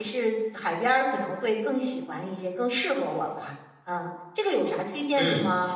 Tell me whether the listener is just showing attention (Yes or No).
No